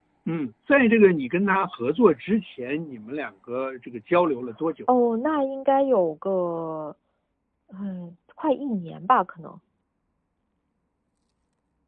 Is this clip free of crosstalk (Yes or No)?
Yes